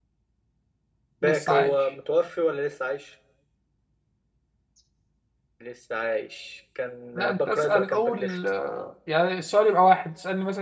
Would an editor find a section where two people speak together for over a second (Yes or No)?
Yes